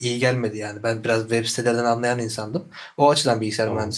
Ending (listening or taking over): listening